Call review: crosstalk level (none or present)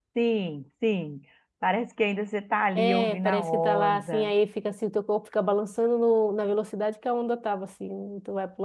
present